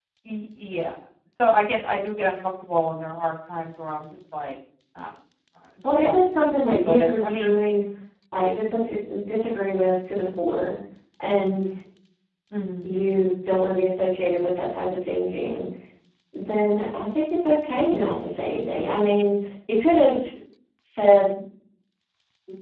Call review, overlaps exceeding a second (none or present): present